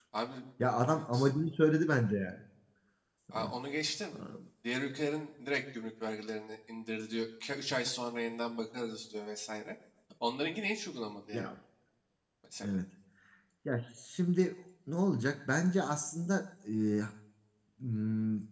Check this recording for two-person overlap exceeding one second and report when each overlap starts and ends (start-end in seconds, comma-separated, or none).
none